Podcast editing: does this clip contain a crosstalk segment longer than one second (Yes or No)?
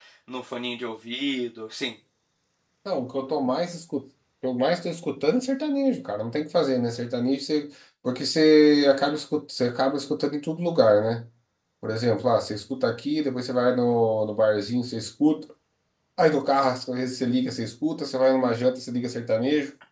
No